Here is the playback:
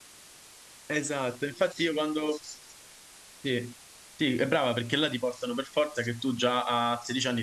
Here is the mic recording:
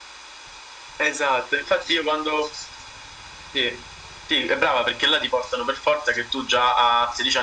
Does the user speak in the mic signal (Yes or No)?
No